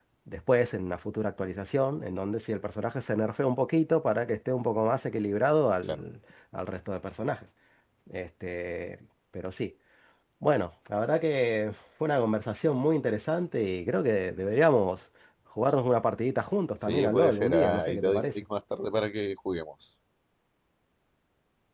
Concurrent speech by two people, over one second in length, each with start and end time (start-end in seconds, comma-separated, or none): 16.9-18.2